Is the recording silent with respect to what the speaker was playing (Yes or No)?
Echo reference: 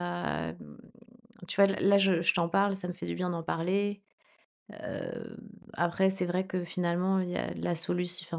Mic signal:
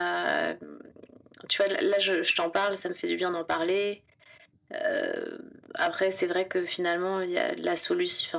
No